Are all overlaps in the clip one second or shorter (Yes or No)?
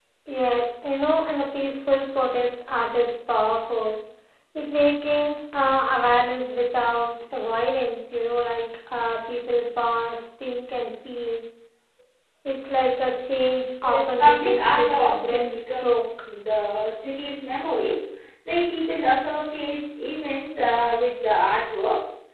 No